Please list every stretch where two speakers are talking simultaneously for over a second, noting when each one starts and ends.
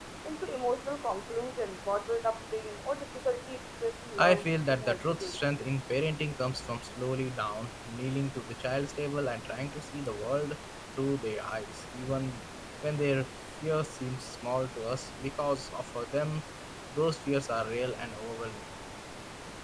4.2-5.4

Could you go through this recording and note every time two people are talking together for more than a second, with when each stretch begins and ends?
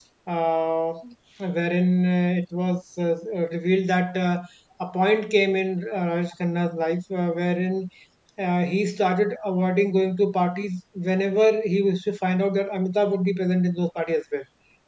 none

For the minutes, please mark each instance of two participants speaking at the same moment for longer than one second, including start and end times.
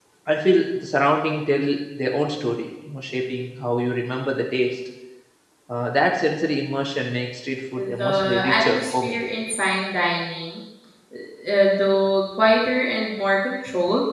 7.8-9.2

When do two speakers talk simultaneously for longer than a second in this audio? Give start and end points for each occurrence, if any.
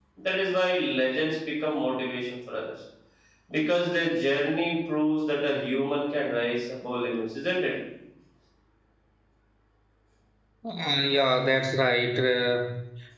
none

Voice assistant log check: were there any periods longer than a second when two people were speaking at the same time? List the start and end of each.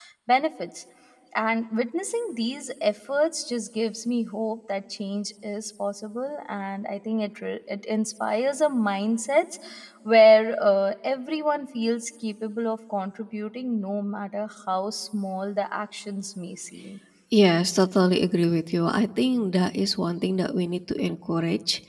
none

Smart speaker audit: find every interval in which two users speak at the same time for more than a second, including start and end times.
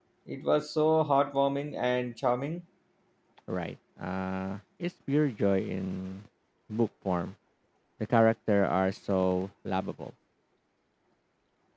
none

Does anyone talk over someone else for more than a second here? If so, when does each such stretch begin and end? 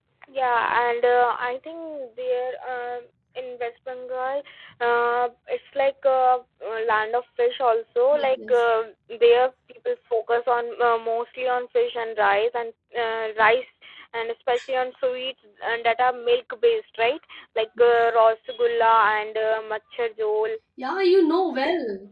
none

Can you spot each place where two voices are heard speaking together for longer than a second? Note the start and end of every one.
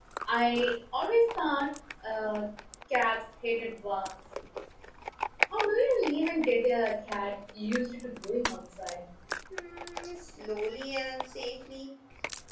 none

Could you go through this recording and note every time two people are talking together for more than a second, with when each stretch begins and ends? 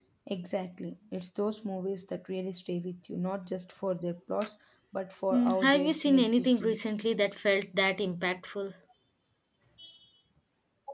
5.3-6.8

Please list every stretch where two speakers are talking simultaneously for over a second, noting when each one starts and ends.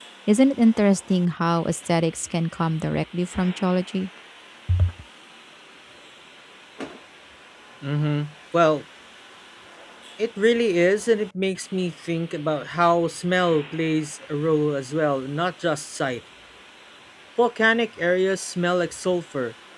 none

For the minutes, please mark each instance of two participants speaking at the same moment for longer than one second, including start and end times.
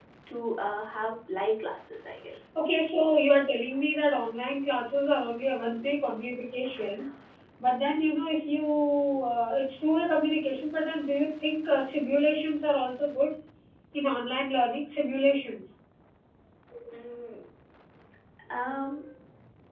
none

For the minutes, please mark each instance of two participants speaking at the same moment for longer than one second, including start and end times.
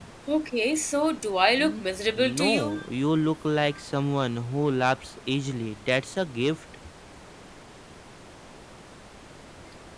1.6-2.8

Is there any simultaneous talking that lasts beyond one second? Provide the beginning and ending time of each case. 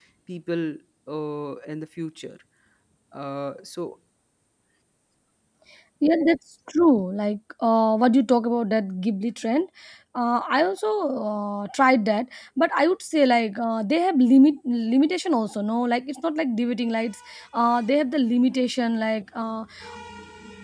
none

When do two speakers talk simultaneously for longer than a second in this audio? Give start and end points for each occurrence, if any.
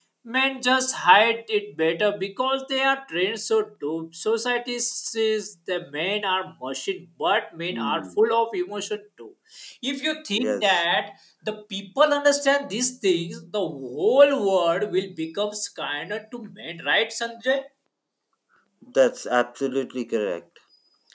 none

